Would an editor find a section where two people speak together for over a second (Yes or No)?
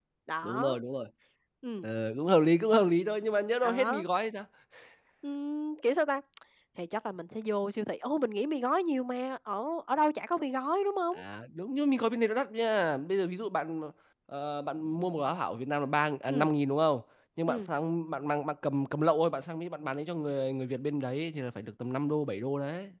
No